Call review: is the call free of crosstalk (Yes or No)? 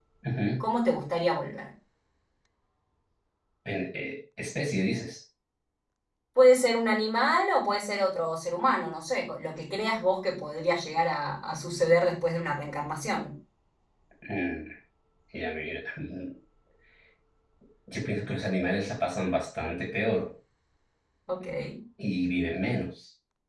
Yes